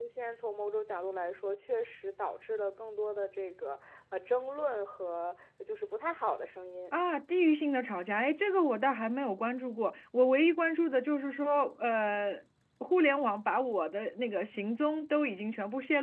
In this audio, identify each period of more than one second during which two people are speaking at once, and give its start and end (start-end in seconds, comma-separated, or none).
none